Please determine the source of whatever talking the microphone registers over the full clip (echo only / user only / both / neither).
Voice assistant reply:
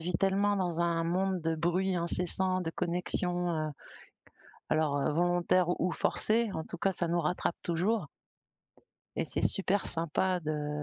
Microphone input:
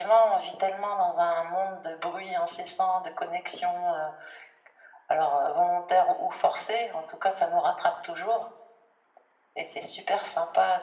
echo only